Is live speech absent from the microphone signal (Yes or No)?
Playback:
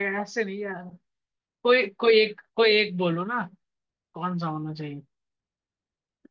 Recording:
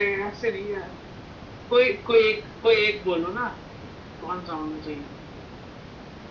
Yes